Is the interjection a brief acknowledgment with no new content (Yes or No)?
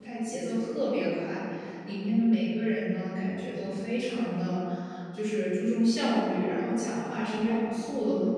Yes